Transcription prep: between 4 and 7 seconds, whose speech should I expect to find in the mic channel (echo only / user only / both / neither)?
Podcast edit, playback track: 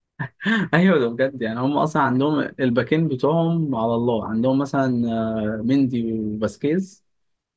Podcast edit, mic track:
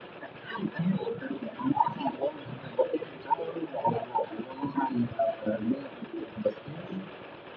echo only